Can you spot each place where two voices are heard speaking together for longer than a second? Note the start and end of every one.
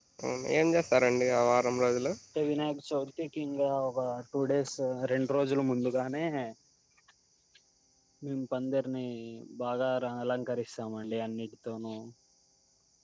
none

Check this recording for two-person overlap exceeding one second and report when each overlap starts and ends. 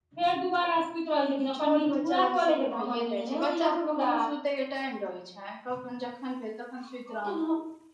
1.5-4.1

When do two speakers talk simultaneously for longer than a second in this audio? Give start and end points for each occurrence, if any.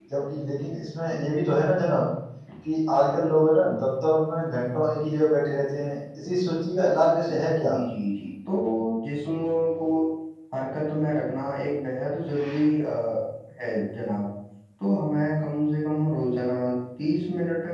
none

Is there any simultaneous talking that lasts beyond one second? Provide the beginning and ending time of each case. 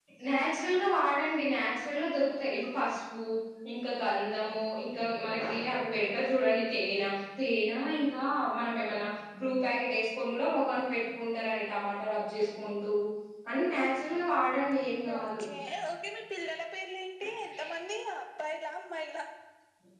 none

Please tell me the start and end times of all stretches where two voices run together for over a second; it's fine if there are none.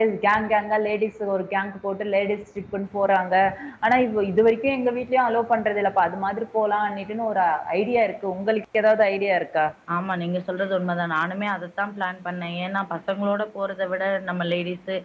none

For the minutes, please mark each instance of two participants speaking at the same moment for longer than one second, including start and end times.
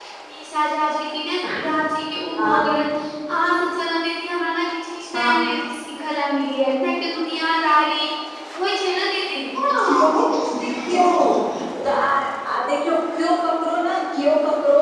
none

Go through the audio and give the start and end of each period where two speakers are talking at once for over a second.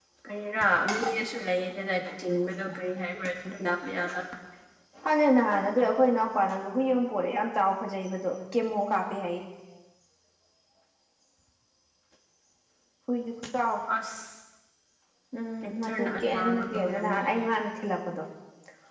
15.6-17.4

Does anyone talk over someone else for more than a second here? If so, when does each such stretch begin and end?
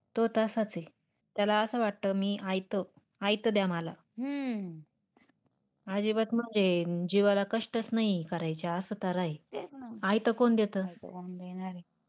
none

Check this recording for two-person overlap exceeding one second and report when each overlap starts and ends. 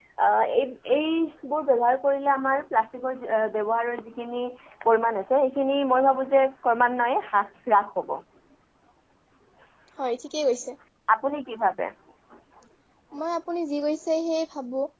none

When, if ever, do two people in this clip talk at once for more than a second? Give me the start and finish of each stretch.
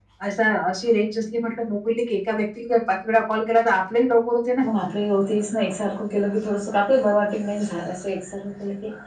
none

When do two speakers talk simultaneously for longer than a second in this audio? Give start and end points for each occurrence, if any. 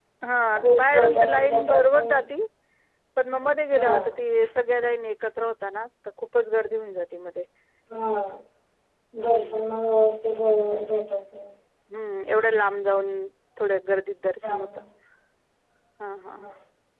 0.8-2.2

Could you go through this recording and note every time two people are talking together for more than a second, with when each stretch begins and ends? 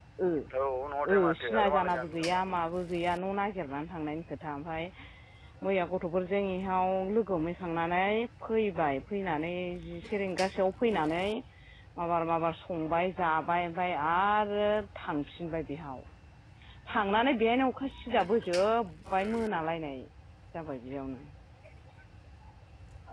1.1-2.3

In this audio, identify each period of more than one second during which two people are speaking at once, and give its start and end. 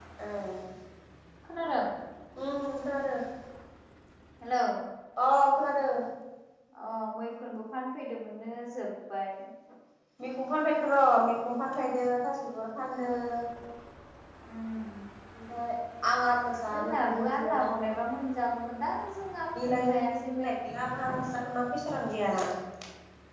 16.7-17.9

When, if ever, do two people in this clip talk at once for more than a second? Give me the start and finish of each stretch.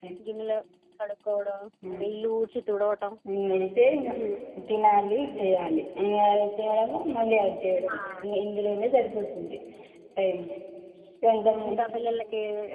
none

